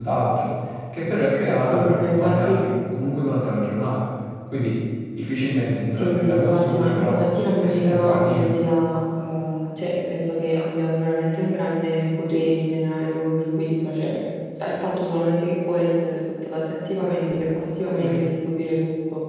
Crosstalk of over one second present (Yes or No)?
Yes